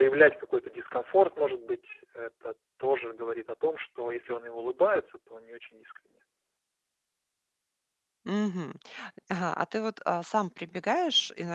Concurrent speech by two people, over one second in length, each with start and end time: none

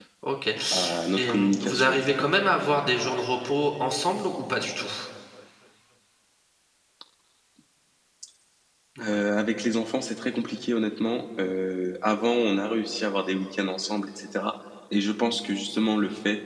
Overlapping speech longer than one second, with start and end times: 0.7-2.3

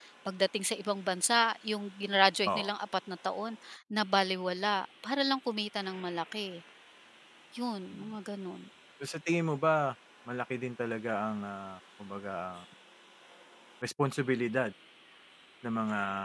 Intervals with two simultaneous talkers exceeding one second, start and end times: none

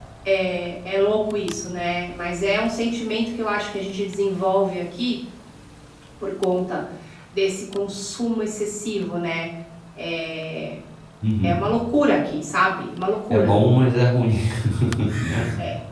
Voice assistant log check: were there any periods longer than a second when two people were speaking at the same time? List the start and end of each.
none

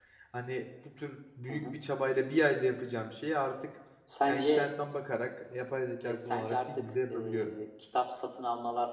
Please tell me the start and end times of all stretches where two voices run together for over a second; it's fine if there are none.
6.0-7.6

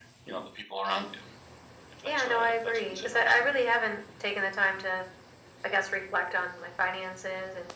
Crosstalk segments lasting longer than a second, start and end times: 2.0-3.5

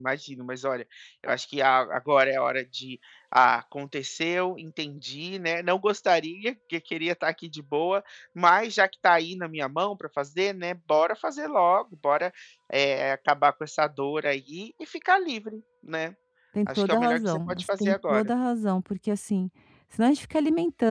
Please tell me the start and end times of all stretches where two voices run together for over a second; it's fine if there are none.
16.7-18.3

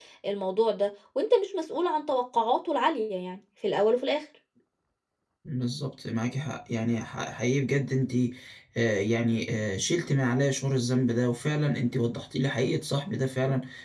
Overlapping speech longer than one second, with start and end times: none

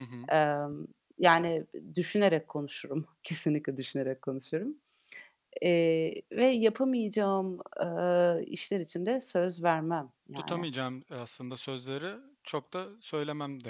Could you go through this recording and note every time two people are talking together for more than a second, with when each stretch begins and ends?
none

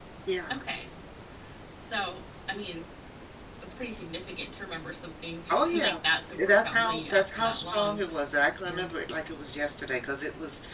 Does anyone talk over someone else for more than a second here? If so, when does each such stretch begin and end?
6.3-8.0

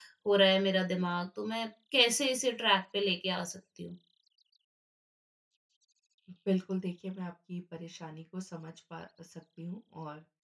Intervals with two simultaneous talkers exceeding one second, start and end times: none

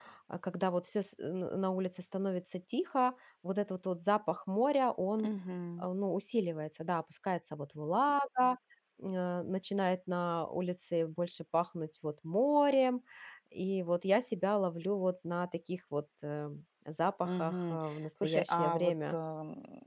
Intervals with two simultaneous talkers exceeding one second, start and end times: 17.2-19.2

